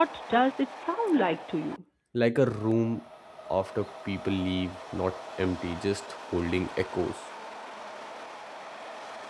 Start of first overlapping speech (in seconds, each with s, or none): none